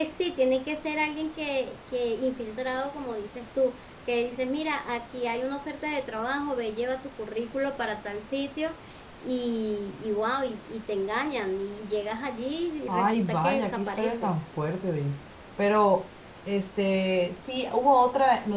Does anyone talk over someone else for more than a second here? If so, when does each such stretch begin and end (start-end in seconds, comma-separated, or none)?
12.9-14.3